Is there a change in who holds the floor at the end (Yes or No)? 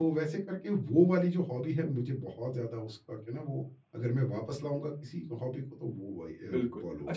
Yes